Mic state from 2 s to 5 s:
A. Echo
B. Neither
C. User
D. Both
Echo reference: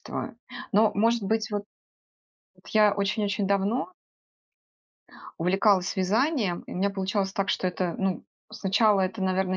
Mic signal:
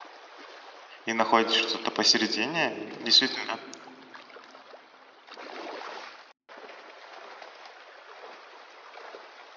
C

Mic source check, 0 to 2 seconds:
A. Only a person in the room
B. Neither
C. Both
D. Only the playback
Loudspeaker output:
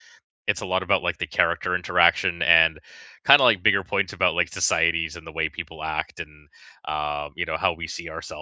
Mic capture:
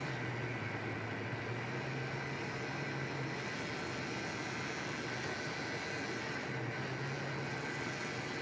B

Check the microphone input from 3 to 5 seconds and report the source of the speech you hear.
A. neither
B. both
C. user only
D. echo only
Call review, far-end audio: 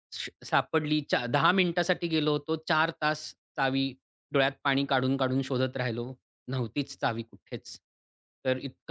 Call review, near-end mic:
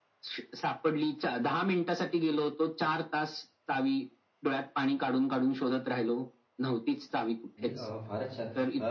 D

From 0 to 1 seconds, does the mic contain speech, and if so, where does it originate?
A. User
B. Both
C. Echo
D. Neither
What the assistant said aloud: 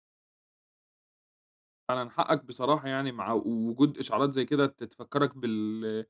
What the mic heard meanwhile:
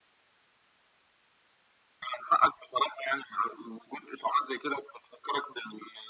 D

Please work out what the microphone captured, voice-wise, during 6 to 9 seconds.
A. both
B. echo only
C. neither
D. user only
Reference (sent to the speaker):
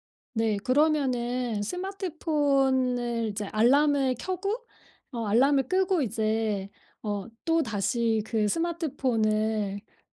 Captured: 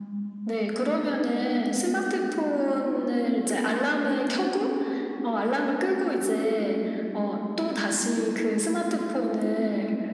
B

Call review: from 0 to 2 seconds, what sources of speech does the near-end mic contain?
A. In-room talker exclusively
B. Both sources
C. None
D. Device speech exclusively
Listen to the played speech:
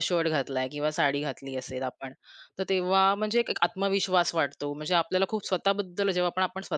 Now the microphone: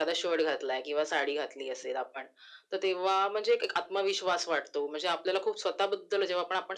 D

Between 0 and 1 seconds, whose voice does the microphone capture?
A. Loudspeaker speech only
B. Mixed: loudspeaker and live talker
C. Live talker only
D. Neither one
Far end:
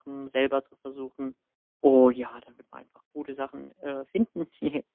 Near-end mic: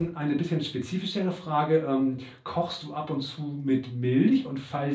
C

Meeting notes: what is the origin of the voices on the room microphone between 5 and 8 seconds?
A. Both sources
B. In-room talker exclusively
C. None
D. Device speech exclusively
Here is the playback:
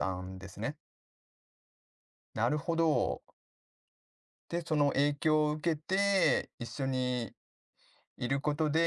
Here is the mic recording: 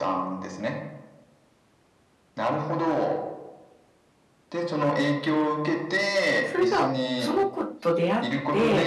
A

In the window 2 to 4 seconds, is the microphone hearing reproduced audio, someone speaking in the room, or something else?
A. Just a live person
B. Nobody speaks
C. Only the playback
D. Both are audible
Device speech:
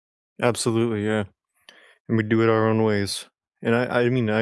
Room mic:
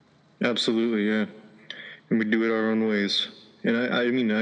C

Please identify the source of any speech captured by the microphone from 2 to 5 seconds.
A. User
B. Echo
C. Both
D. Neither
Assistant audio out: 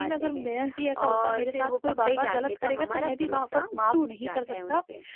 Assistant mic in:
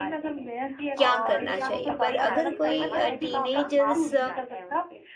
C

